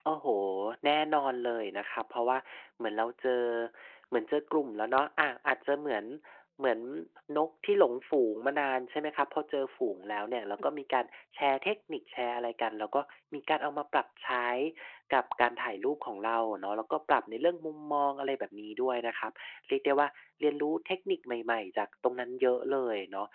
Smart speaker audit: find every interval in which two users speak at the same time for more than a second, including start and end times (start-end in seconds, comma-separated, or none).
none